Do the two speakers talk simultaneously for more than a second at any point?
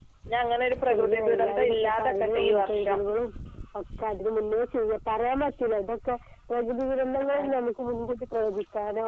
Yes, from 0.8 s

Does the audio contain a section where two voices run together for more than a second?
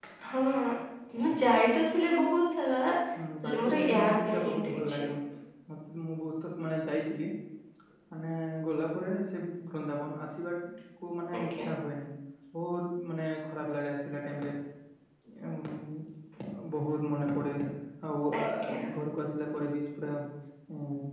Yes, from 3.4 s

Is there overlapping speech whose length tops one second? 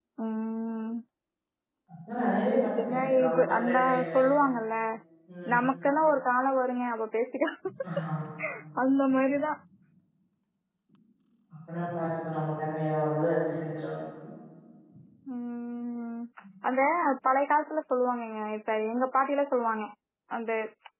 Yes, from 2.6 s

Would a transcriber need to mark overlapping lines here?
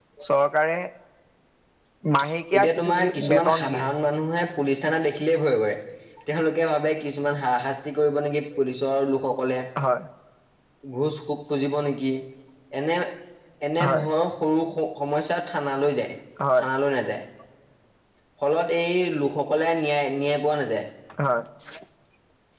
Yes, from 2.5 s

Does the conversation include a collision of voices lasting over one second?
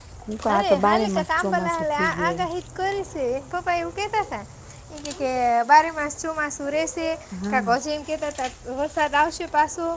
Yes, from 0.5 s

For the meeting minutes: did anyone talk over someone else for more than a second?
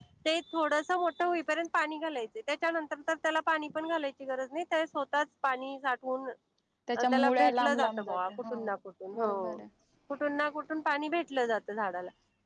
Yes, from 7.1 s

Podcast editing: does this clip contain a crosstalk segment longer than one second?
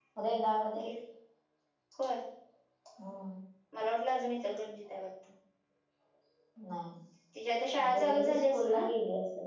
Yes, from 7.3 s

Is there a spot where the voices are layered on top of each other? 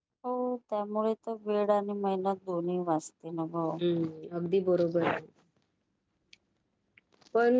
No

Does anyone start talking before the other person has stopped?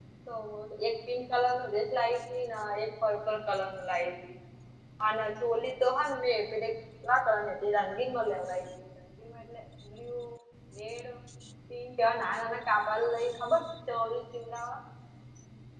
No

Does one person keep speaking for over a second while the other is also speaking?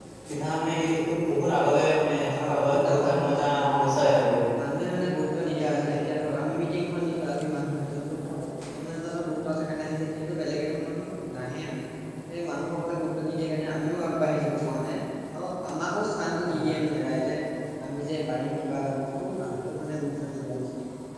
Yes, from 2.1 s

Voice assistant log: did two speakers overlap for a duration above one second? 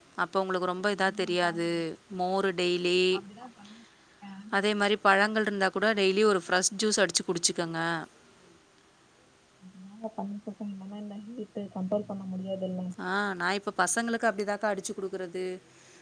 No

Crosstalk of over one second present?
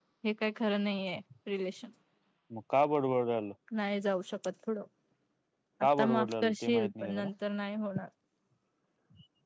Yes, from 5.8 s

